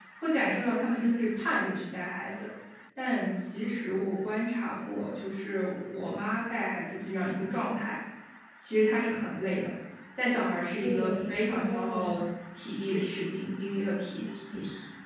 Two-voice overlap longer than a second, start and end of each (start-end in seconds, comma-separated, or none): 10.8-12.1